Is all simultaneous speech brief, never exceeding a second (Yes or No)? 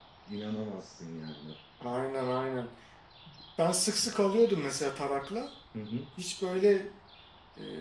Yes